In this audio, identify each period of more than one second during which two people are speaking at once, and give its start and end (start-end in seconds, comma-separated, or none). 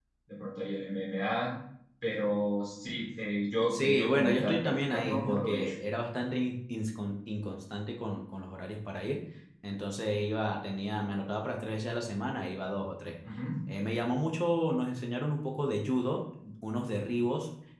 3.7-5.7